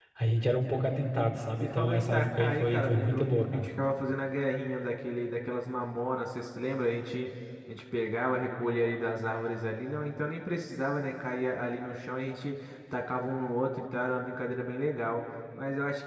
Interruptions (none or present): present